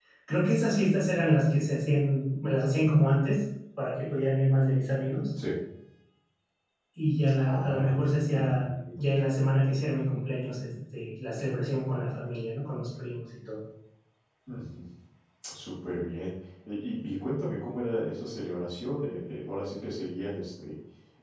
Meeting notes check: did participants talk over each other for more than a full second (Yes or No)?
Yes